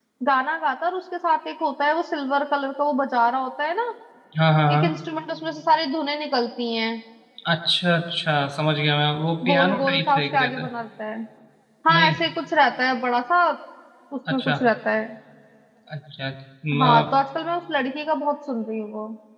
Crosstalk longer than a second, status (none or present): present